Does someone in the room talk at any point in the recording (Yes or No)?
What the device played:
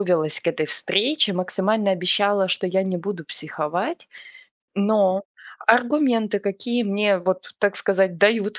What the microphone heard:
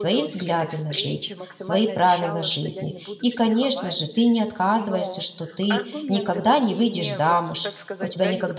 Yes